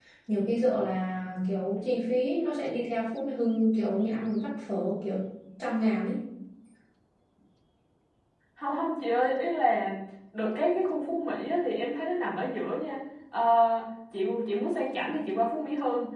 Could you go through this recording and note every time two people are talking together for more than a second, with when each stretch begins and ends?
none

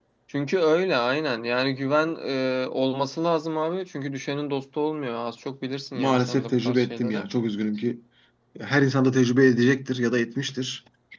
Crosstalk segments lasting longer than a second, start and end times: 5.9-7.2

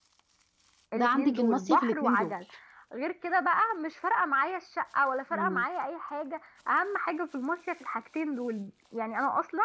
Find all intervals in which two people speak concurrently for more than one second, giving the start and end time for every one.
0.9-2.3

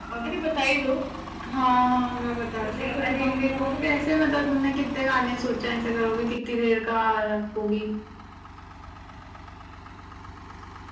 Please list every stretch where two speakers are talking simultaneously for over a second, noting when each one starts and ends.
2.6-4.0

